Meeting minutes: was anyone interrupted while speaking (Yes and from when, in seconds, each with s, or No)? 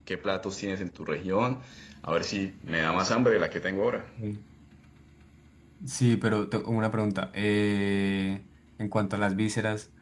No